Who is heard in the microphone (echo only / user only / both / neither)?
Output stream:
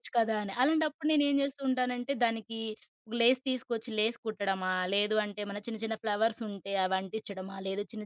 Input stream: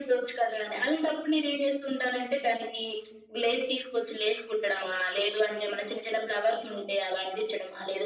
echo only